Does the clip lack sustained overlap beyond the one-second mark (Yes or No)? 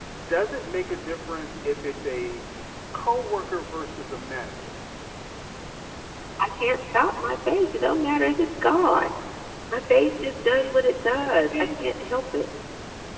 Yes